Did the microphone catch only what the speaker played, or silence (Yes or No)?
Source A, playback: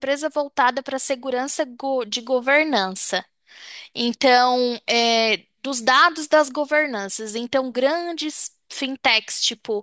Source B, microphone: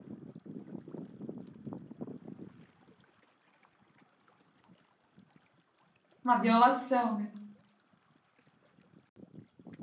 No